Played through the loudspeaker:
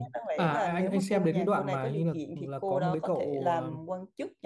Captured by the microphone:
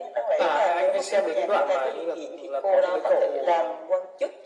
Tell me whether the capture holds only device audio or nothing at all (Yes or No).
Yes